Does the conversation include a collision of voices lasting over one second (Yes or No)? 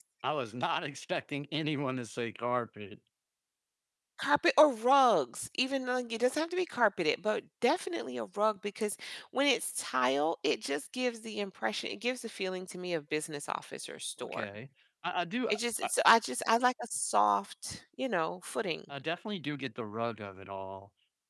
No